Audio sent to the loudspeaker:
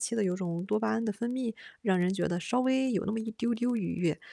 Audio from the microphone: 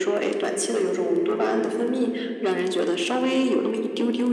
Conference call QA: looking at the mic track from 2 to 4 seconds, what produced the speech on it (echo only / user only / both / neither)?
echo only